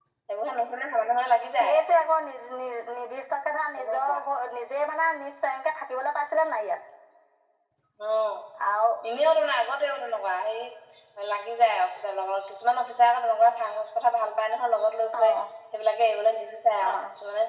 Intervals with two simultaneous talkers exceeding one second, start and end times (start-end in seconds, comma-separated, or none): none